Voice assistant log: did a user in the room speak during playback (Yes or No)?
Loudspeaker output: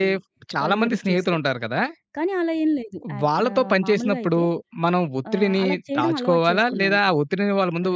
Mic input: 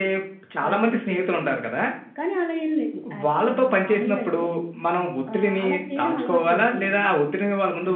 No